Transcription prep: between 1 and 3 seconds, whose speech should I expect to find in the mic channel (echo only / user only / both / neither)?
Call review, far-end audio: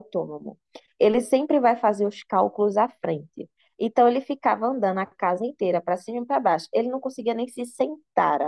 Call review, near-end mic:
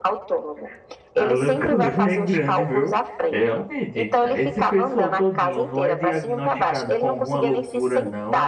both